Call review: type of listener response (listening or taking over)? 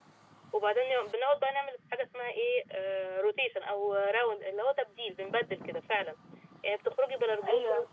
listening